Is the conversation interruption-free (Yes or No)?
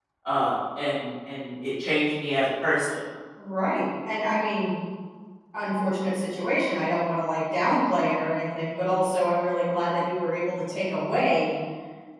Yes